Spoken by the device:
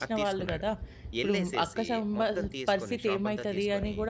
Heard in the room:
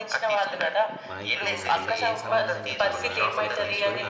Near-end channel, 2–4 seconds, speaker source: both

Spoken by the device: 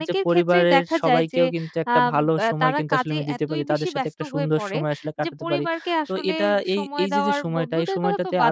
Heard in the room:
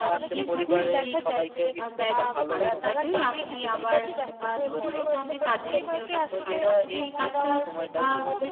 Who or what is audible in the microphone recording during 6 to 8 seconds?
both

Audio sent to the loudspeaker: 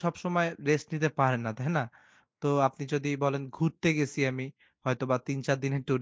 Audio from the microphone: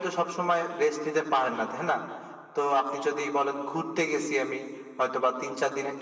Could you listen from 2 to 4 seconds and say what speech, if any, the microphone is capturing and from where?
echo only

